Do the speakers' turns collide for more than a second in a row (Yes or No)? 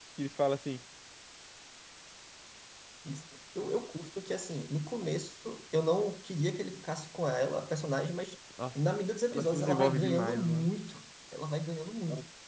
Yes